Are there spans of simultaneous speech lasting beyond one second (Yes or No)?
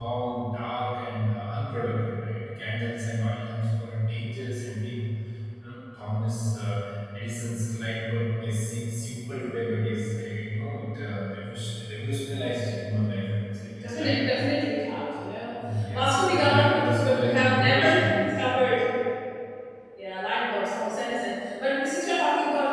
Yes